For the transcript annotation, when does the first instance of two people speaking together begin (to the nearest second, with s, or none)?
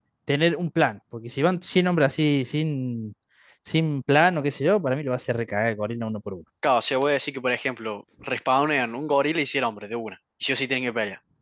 none